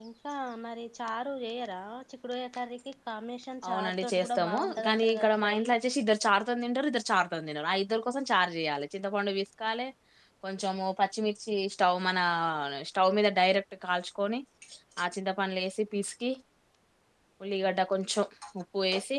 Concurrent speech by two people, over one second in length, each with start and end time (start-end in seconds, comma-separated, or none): 3.7-5.6